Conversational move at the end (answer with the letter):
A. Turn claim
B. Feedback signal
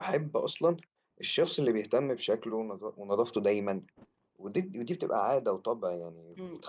A